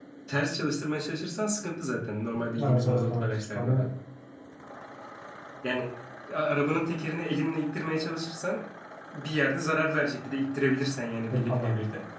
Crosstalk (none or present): present